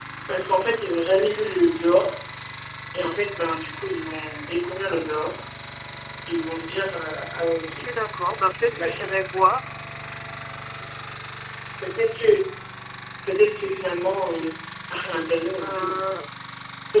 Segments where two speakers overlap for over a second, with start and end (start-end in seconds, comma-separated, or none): none